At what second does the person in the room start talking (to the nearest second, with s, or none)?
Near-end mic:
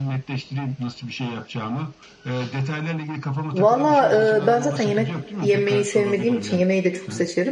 4 s